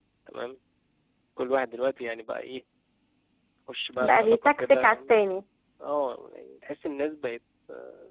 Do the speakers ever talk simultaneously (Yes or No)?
Yes